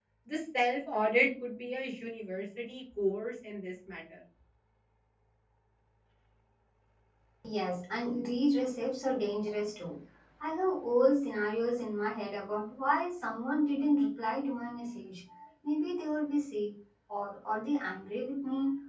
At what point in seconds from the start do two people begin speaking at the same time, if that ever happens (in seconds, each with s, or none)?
none